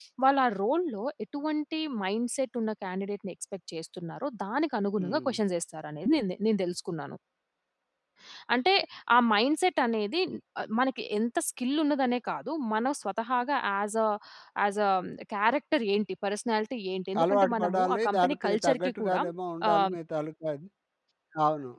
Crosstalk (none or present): present